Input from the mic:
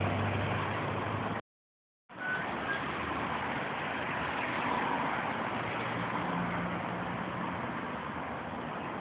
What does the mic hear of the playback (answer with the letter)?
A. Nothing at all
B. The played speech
A